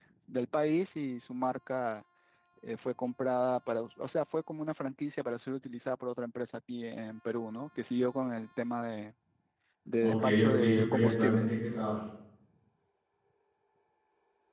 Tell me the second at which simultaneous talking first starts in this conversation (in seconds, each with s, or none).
10.0 s